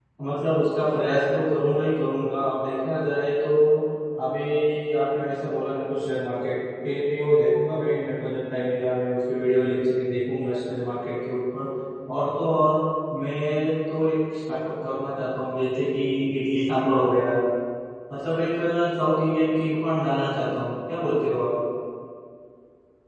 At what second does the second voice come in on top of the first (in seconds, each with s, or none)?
none